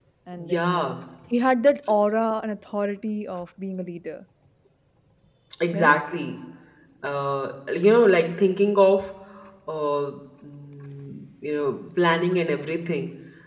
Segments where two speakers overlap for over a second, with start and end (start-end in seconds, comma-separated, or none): none